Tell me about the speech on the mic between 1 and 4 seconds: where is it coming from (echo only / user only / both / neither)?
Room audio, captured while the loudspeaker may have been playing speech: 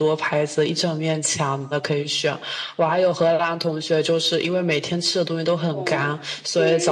echo only